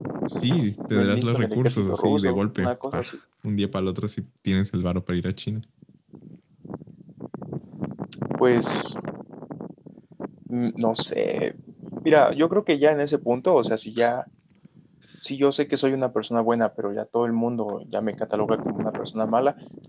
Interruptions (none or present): present